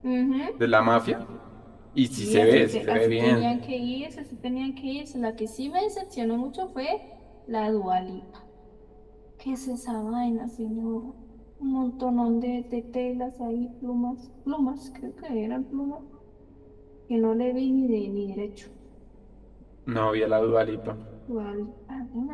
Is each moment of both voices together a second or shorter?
No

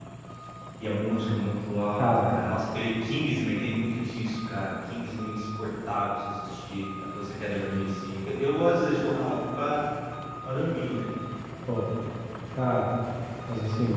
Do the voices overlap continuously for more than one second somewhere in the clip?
No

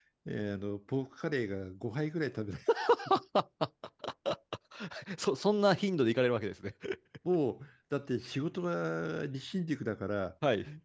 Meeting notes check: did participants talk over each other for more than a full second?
No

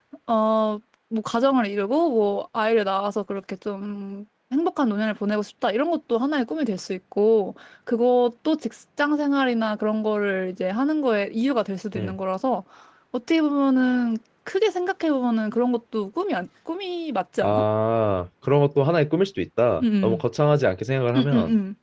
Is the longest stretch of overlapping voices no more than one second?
Yes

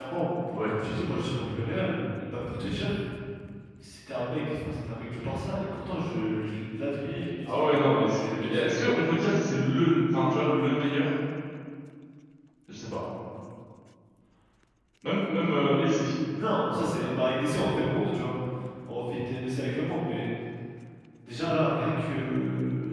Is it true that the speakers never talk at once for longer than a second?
No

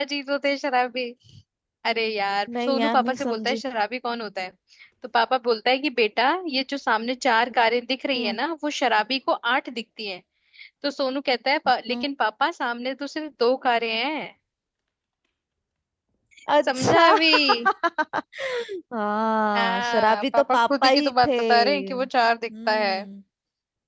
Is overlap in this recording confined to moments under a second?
No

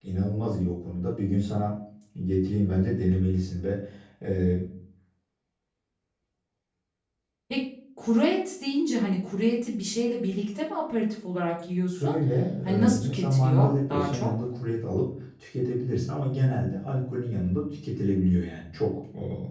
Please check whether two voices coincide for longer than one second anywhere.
Yes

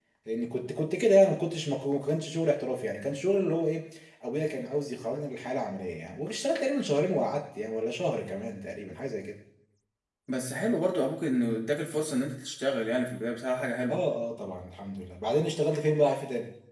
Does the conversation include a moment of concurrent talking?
No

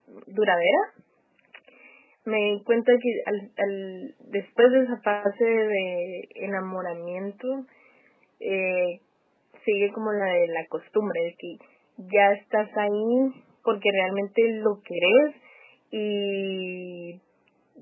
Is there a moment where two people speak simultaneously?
No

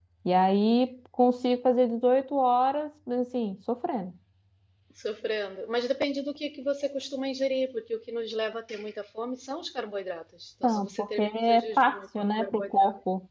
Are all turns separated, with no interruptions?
No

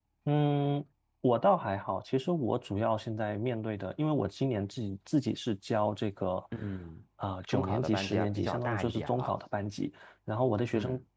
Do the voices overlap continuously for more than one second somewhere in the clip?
Yes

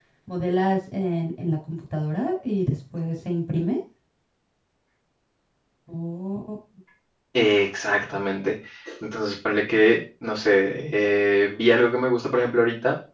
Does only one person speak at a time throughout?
Yes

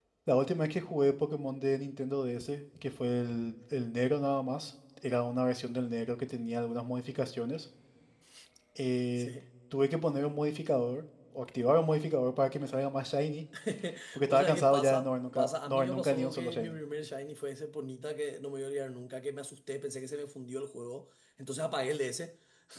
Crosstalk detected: Yes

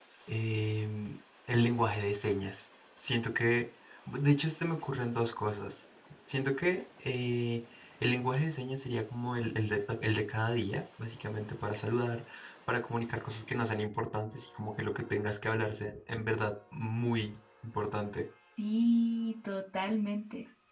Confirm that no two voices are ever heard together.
Yes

